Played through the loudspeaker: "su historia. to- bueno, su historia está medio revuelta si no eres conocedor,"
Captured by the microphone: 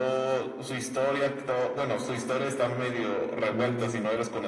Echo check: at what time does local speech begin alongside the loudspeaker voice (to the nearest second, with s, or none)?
4 s